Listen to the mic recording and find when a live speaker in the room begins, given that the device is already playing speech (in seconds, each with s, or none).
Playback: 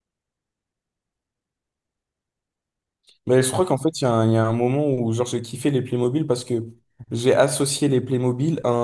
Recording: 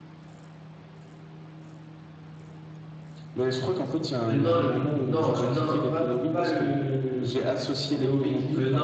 4.2 s